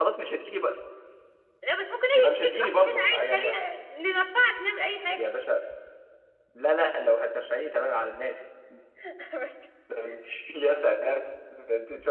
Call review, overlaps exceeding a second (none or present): present